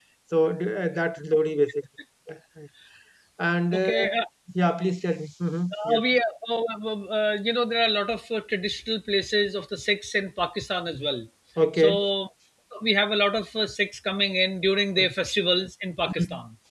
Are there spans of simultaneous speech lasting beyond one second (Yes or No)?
No